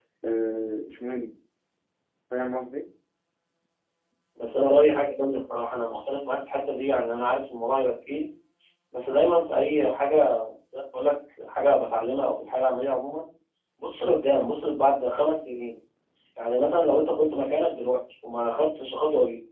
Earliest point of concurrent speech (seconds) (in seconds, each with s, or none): none